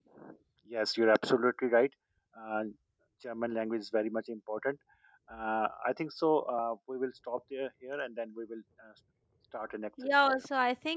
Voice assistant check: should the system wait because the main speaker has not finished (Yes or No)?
No